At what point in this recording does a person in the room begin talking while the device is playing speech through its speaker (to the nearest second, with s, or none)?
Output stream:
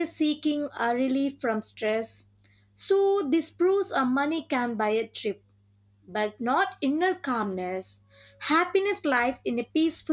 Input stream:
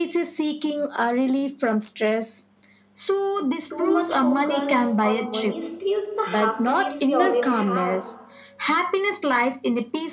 4 s